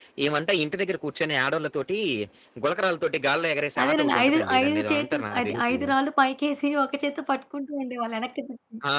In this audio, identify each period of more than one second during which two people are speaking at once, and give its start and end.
3.8-5.8

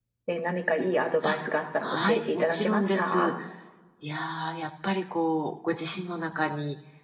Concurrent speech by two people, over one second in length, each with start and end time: 1.8-3.3

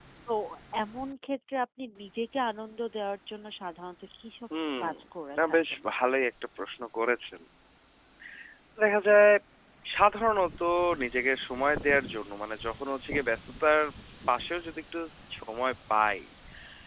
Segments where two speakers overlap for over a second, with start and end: none

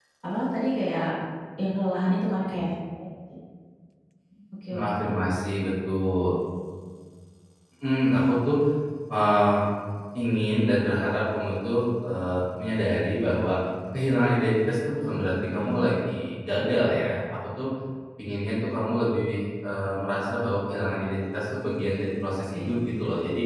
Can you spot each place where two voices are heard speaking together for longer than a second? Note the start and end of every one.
none

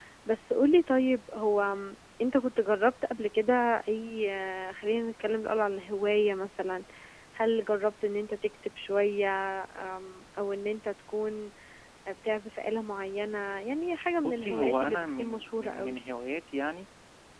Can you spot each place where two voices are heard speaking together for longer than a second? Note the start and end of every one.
14.2-16.0

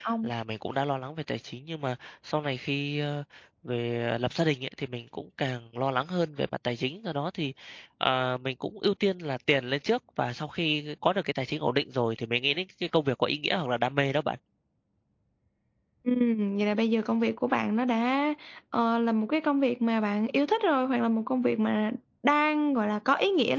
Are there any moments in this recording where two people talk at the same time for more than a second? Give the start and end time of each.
none

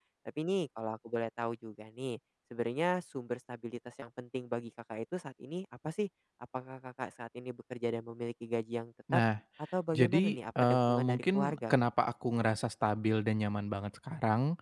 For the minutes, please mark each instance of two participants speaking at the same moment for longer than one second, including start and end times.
9.9-11.7

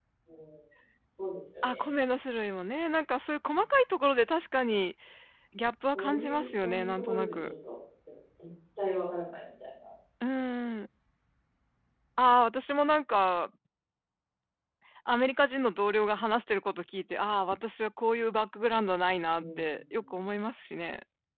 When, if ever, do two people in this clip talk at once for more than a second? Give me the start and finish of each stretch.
5.9-7.5

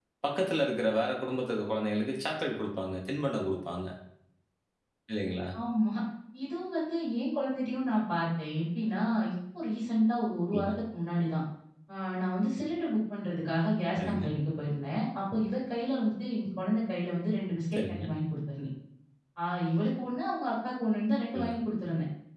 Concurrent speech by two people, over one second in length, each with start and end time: none

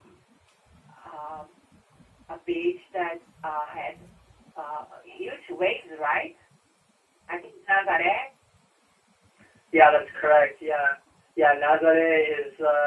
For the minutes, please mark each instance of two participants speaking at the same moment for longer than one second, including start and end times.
none

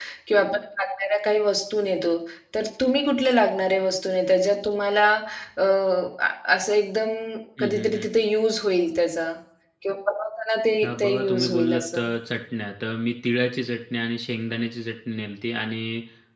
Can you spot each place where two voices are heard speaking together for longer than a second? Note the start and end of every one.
10.8-12.0

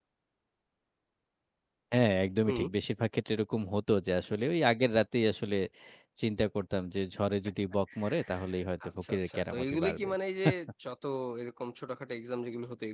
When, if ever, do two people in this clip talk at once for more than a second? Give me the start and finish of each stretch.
8.8-10.1

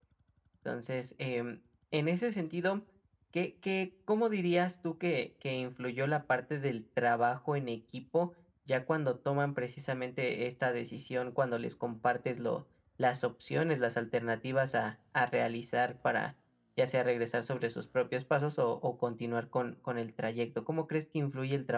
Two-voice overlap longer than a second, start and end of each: none

